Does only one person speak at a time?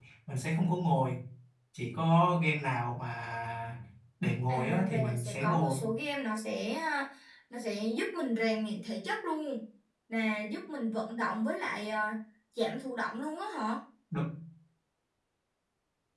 No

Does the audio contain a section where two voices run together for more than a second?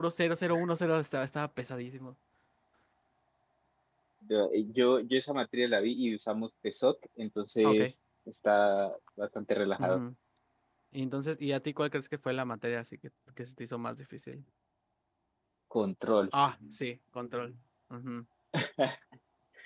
No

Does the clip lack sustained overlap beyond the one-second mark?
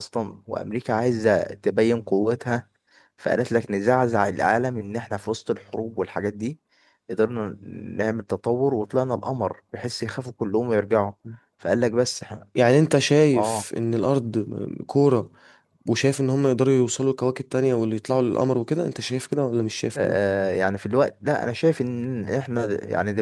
Yes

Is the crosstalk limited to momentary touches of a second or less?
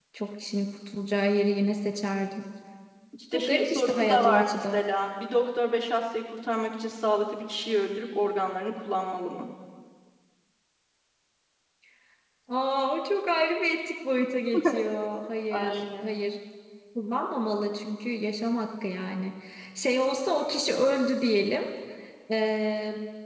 No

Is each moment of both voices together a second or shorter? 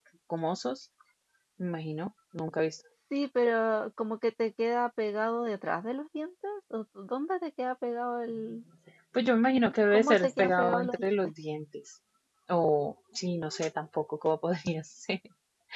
No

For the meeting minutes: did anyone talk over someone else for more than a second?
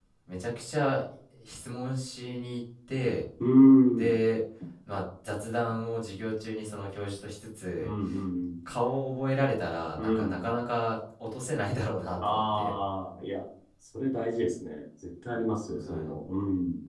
No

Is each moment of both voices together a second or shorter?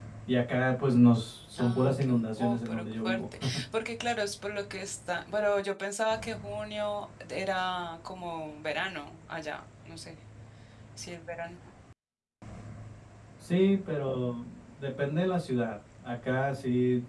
No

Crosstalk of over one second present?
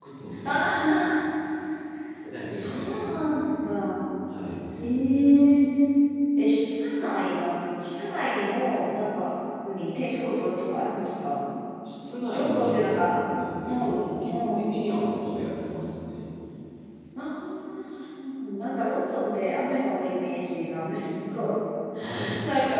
Yes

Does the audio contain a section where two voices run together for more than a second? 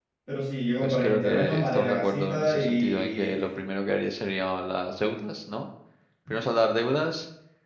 Yes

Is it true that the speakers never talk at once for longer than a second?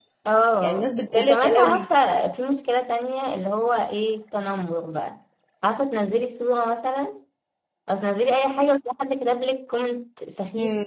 No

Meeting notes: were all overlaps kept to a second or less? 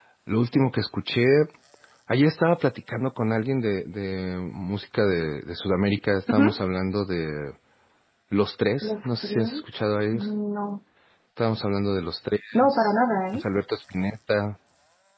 No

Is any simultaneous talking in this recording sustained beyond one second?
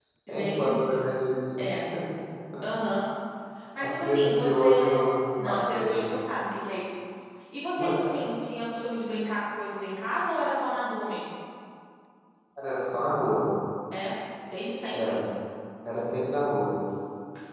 Yes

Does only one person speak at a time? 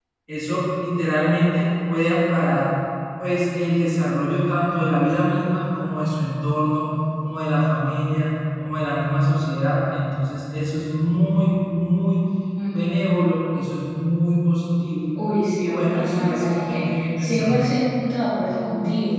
No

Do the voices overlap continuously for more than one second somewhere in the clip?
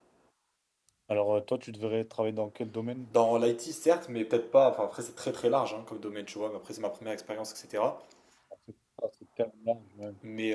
No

